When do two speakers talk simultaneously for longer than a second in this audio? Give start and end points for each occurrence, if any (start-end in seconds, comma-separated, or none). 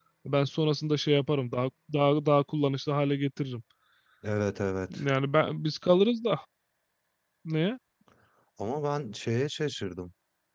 none